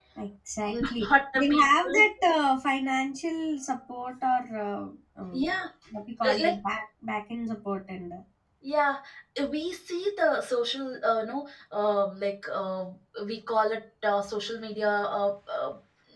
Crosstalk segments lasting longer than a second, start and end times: 0.7-2.0

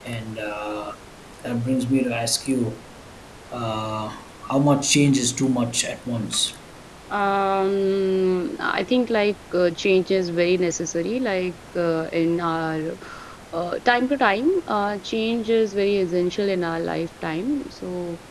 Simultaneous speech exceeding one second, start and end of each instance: none

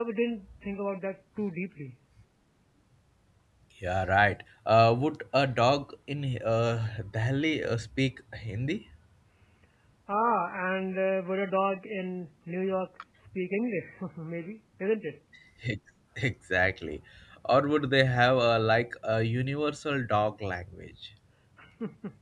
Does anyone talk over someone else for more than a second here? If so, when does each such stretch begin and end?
none

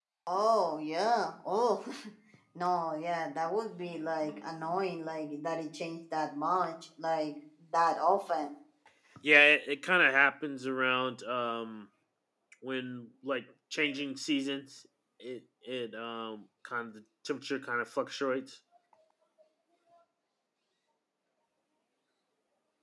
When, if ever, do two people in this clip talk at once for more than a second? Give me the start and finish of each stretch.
none

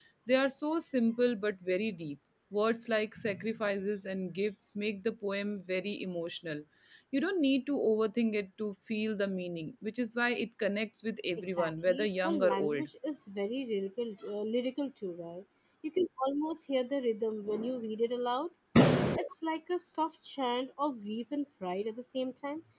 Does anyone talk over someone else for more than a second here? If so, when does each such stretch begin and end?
11.6-12.9

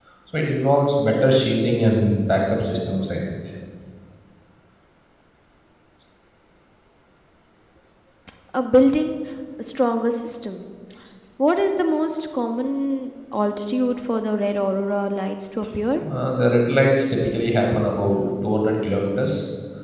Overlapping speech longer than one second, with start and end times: none

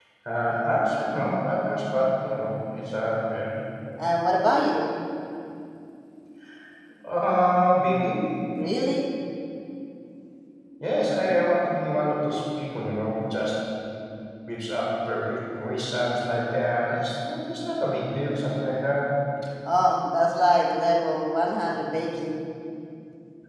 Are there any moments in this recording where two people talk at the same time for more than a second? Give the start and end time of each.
none

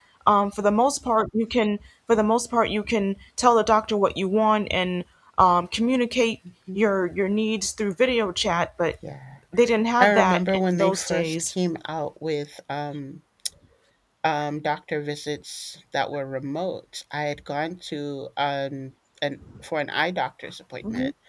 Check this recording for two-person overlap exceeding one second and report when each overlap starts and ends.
10.0-11.5

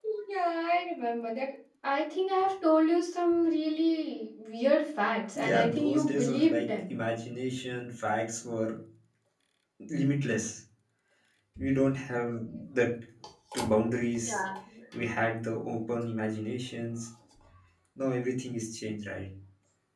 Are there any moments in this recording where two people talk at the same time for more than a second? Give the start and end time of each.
5.3-6.9

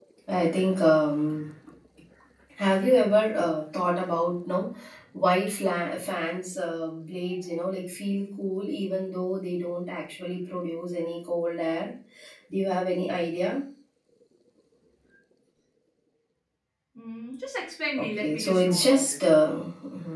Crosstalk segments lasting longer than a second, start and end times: 18.0-19.2

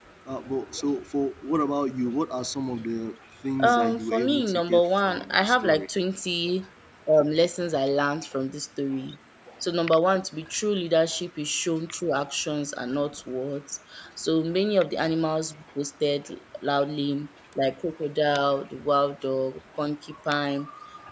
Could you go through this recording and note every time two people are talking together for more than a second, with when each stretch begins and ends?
3.6-5.9

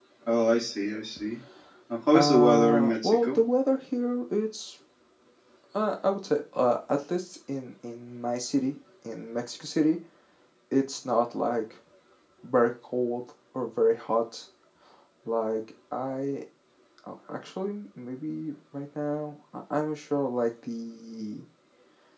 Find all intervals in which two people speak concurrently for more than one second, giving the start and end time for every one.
2.1-3.4

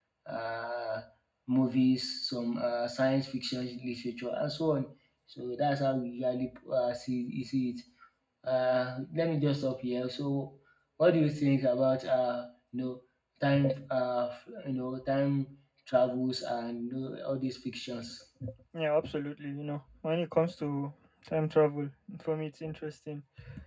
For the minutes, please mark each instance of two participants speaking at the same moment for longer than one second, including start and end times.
none

